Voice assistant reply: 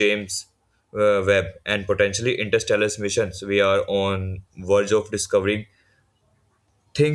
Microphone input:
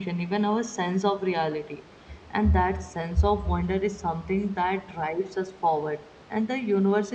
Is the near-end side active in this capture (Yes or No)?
Yes